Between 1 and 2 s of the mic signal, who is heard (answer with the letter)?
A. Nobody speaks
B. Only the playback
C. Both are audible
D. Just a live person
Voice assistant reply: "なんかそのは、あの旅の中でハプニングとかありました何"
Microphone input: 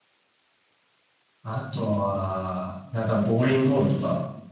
D